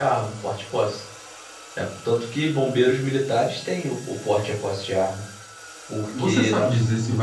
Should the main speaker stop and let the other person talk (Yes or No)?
Yes